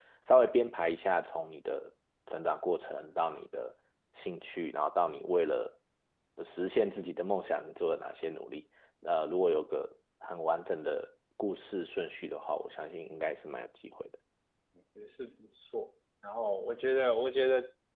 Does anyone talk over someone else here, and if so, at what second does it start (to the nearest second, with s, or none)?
none